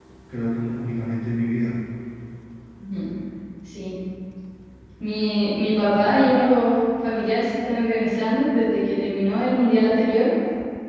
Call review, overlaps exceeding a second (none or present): none